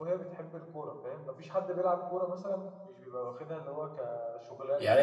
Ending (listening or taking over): taking over